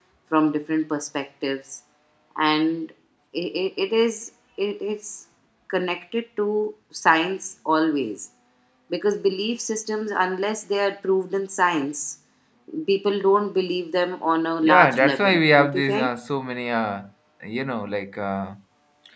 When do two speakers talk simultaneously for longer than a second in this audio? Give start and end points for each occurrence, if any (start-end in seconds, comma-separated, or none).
14.6-16.1